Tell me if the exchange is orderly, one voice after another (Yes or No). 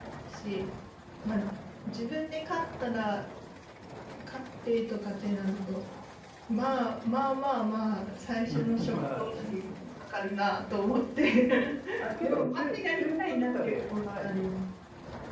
No